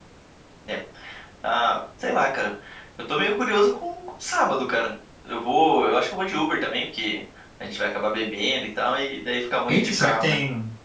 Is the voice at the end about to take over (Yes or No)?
Yes